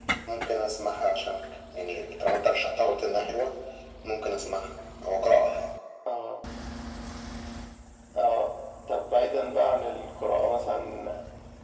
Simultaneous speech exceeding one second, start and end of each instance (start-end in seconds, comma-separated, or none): none